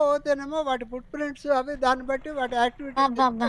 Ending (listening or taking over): taking over